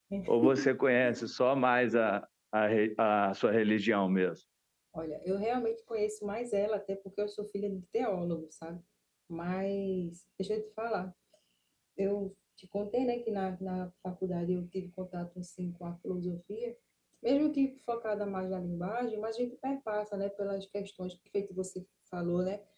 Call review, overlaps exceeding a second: none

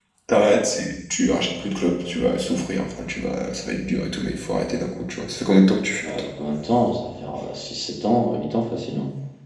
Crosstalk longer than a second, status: none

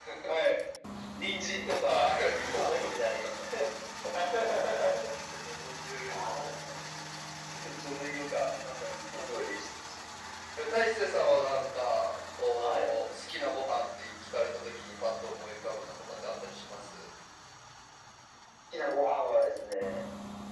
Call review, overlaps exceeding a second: present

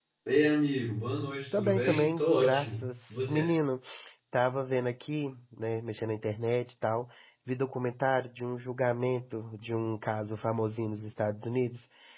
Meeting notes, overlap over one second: present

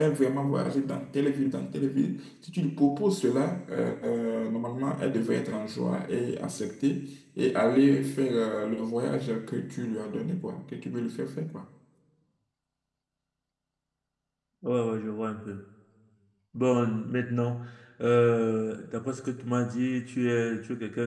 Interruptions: none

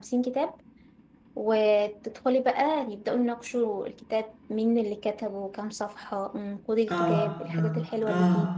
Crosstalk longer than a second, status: present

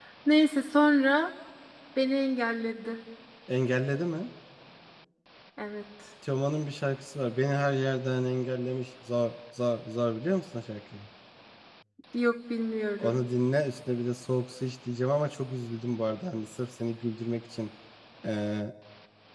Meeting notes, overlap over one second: none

